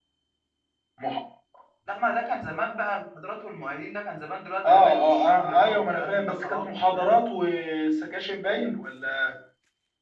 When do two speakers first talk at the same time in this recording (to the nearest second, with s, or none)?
5 s